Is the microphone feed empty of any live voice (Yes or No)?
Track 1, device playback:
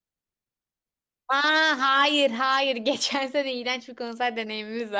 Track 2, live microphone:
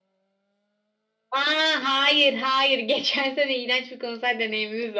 Yes